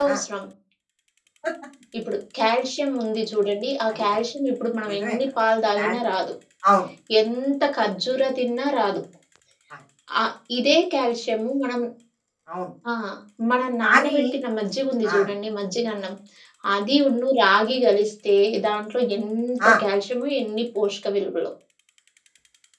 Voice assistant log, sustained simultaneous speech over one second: none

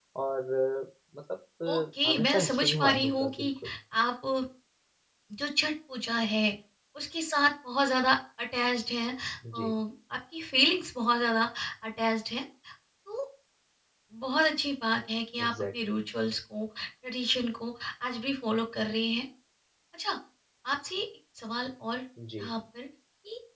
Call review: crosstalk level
present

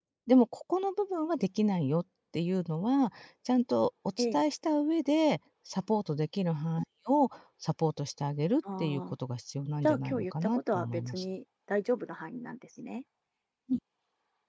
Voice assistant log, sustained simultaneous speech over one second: present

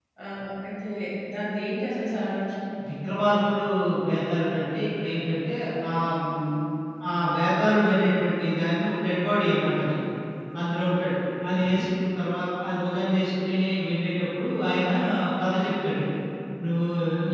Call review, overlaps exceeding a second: none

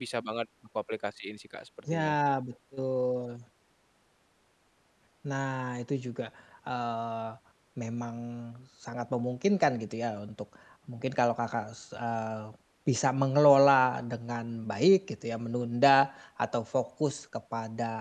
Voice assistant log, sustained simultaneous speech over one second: none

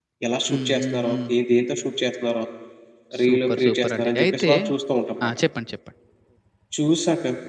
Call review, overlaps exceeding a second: present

